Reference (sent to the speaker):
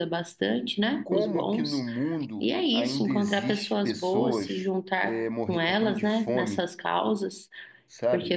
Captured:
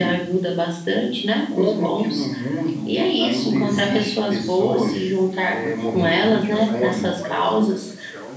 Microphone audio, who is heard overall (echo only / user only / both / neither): both